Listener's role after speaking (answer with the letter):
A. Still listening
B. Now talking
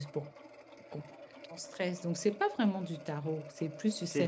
B